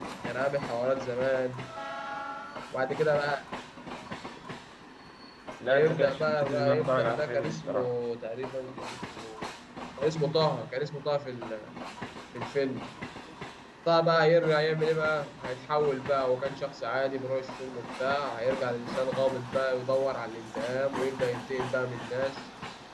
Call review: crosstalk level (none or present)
present